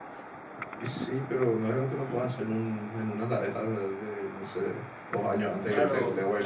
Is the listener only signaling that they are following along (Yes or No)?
No